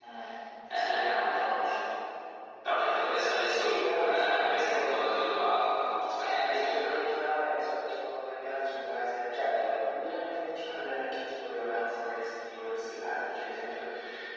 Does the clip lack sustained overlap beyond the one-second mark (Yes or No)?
No